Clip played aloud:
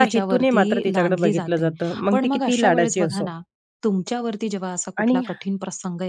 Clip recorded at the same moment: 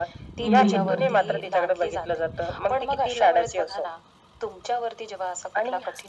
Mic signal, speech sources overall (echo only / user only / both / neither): both